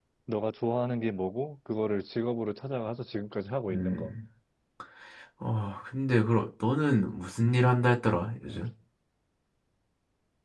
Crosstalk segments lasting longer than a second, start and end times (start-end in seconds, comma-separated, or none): none